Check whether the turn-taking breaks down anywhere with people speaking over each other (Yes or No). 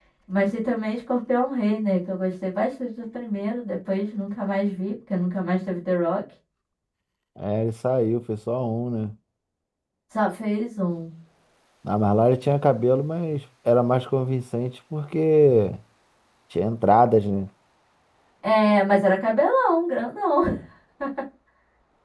No